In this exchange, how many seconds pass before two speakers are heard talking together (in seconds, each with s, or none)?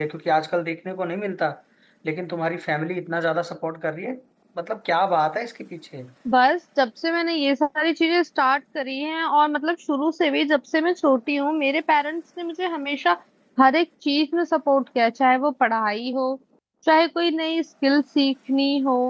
none